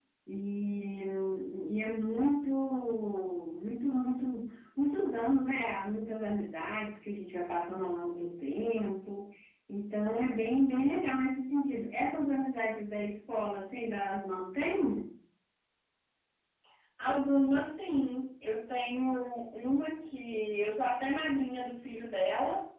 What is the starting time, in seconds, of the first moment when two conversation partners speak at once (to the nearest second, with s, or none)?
none